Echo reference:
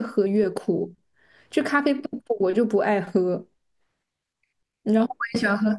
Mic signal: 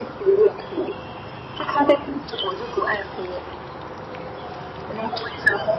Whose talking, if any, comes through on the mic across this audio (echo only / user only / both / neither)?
echo only